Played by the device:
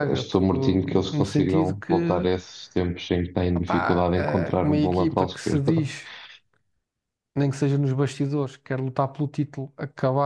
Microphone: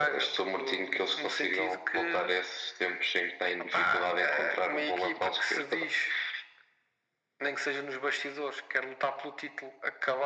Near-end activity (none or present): none